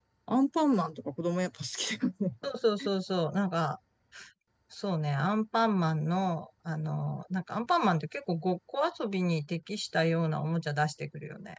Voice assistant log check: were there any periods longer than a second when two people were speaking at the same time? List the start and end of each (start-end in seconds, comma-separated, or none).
none